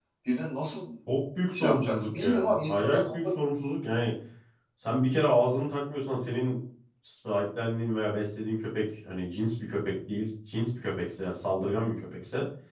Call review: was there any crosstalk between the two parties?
Yes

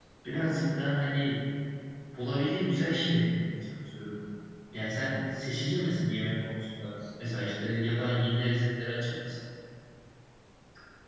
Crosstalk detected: No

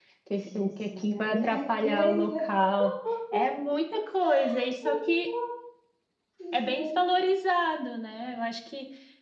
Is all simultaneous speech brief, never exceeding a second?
No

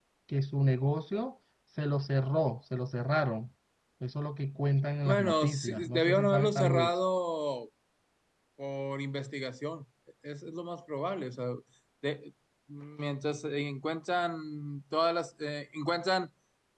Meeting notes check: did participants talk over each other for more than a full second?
Yes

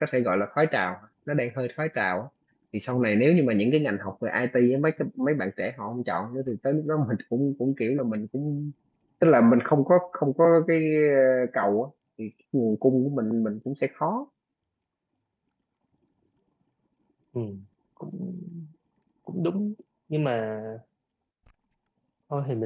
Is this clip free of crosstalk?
Yes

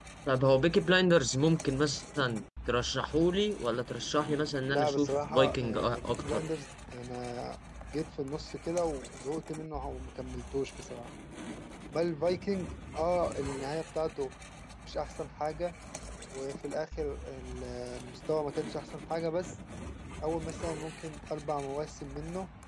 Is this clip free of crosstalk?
No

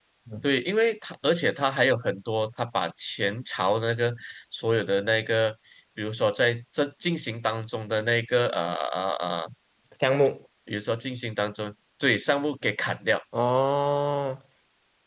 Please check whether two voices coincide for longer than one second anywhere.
No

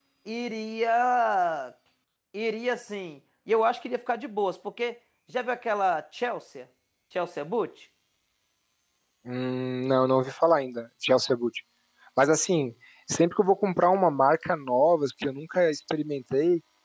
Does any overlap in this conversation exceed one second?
No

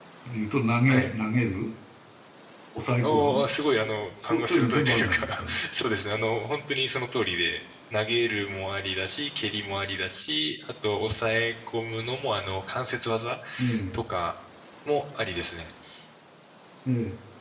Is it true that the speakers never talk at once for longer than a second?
No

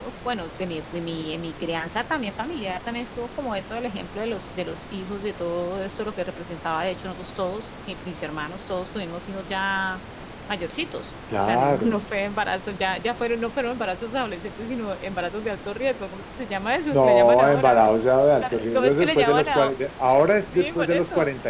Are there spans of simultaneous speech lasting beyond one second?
Yes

